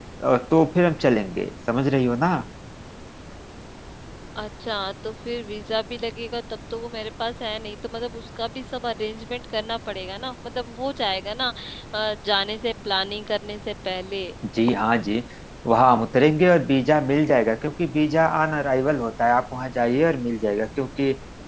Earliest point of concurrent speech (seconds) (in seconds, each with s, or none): none